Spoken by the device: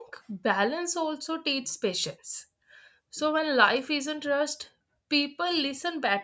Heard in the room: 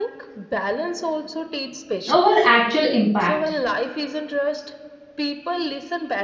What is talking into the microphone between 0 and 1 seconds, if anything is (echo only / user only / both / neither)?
echo only